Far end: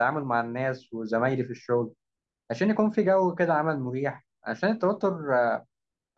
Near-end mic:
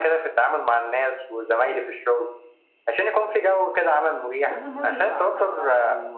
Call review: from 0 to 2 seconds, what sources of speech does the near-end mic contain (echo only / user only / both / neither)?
echo only